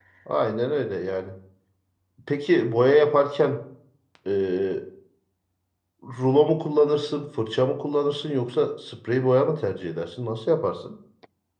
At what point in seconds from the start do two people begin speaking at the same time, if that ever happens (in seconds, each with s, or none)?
none